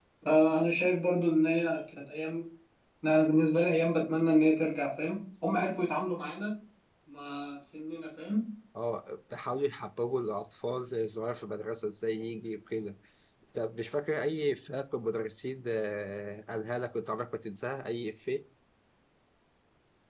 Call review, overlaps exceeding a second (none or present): none